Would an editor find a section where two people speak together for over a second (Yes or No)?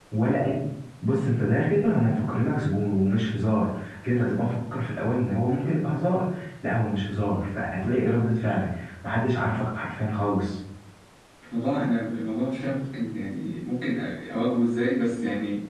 No